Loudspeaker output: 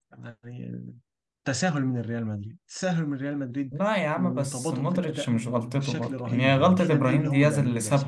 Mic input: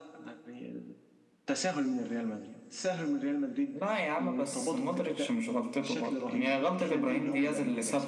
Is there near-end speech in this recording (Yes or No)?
No